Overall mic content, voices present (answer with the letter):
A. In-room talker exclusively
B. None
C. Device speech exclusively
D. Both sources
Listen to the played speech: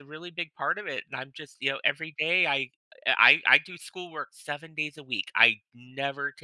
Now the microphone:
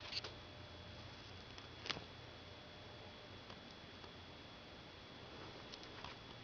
B